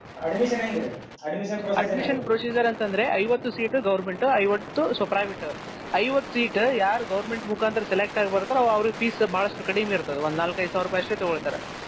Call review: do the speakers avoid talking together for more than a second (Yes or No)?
Yes